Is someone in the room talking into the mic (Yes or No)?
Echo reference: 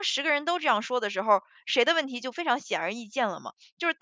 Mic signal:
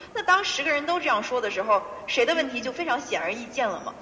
Yes